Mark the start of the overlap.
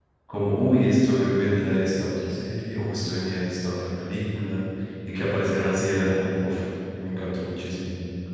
none

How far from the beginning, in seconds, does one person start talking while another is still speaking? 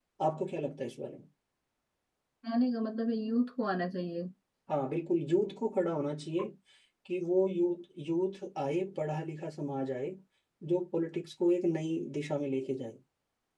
none

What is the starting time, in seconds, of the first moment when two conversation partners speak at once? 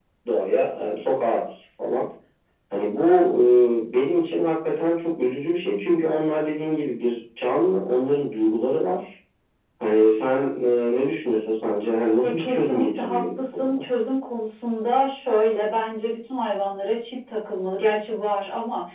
12.2 s

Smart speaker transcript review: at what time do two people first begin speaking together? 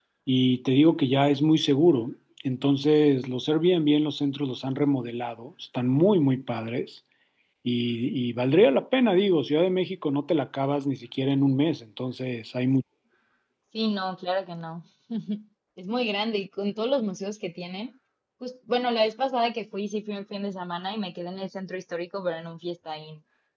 none

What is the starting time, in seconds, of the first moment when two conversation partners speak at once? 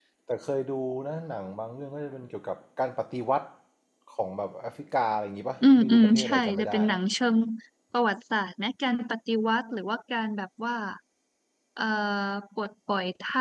5.6 s

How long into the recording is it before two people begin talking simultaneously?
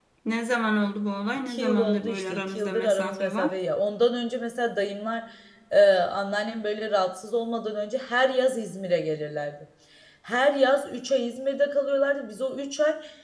1.5 s

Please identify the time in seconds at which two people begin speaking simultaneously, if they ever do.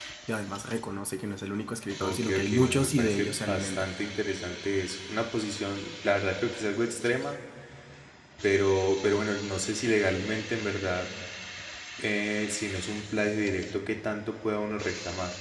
2.0 s

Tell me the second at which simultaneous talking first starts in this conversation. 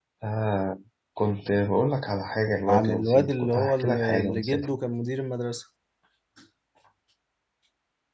2.7 s

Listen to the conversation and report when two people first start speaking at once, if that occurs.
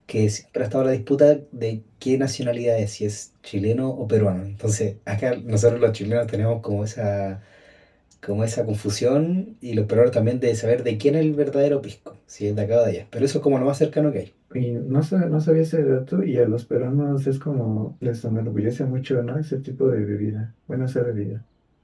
none

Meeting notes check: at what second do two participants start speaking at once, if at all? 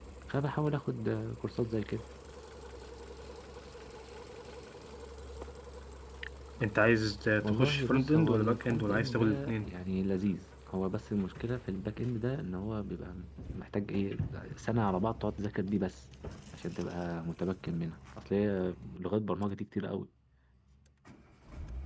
7.4 s

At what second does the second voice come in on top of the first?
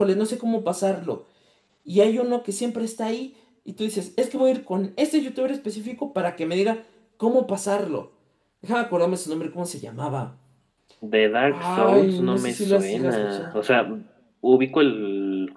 11.5 s

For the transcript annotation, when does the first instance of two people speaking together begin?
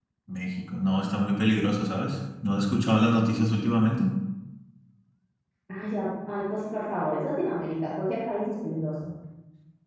none

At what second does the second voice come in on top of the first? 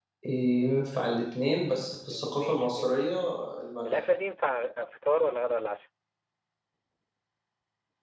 2.1 s

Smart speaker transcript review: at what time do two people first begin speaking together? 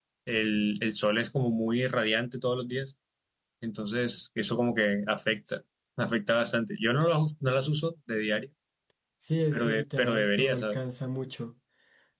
9.5 s

